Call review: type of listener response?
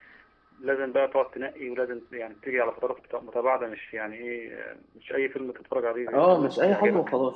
taking over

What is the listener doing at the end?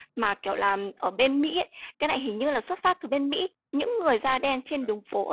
listening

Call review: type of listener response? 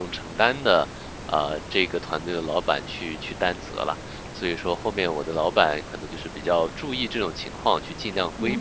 taking over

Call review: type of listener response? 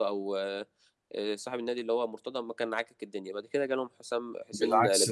taking over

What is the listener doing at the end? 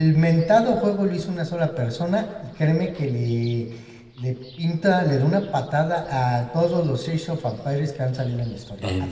listening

